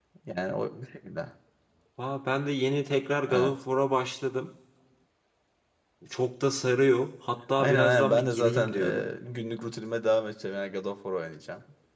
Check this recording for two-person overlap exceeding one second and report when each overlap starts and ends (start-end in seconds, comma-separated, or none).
7.6-9.0